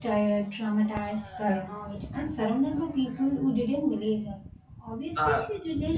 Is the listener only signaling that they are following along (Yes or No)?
Yes